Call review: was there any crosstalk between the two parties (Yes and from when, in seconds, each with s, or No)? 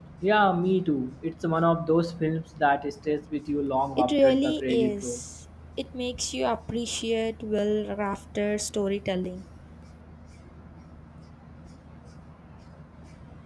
Yes, from 4.0 s